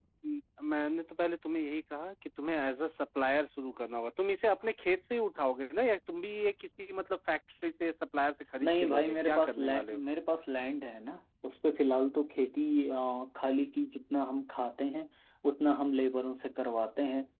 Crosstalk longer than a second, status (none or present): present